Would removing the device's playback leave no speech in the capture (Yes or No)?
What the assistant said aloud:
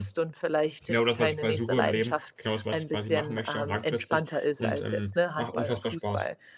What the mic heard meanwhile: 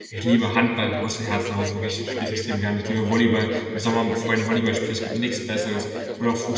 No